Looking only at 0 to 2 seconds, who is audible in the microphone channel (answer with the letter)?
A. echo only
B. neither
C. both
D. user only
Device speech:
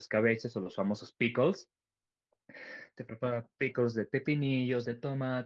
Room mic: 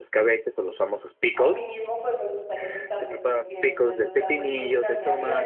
C